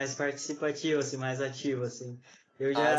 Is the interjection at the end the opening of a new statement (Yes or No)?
No